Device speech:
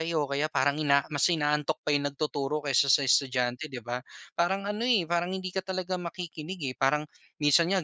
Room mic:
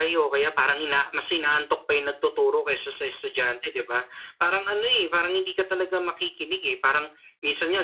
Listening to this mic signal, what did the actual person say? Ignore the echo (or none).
none